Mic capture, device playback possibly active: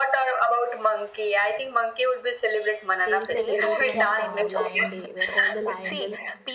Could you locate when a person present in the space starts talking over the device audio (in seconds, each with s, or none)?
3.0 s